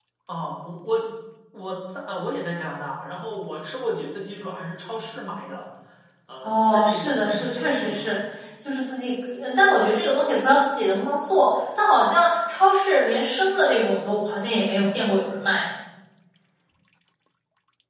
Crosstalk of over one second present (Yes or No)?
Yes